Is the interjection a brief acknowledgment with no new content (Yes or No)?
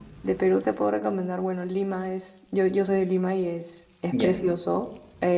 Yes